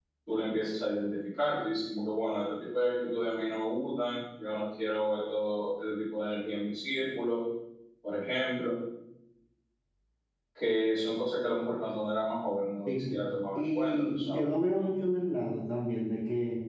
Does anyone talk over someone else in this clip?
Yes, from 12.9 s

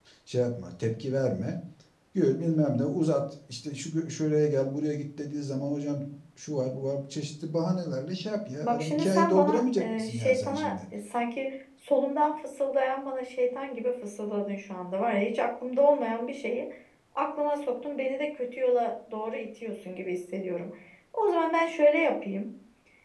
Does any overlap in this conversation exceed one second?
Yes, from 8.6 s

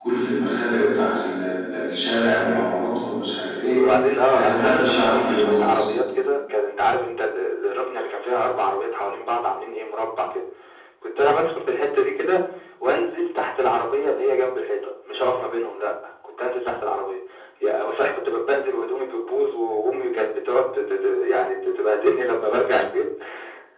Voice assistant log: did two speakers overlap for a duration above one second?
Yes, from 4.3 s

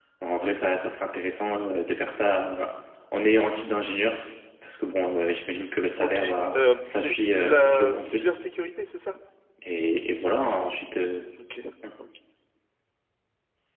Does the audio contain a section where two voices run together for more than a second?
Yes, from 6.0 s

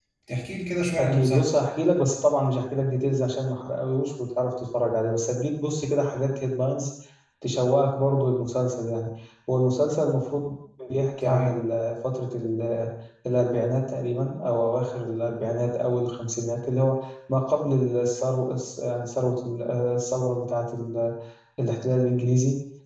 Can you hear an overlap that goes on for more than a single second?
No

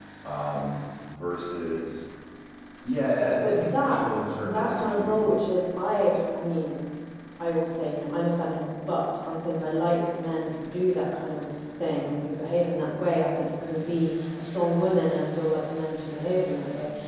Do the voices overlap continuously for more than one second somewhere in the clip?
Yes, from 3.4 s

